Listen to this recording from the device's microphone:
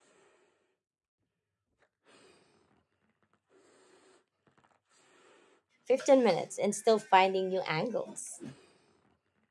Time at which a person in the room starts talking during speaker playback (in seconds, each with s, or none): 5.8 s